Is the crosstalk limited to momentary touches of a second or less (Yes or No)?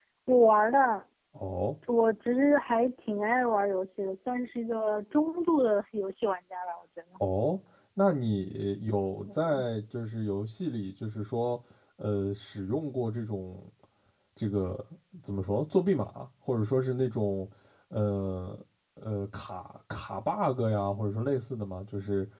Yes